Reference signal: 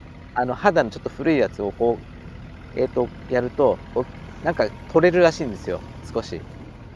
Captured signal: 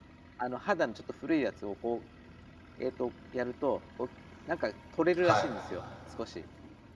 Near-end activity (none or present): present